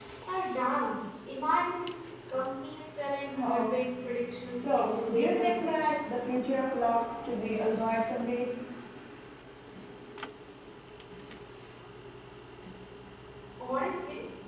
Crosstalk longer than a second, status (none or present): present